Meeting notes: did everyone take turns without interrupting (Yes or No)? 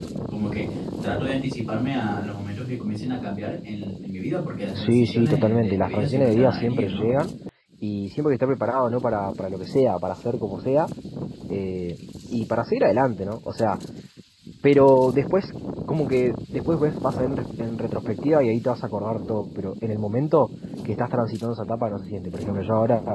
No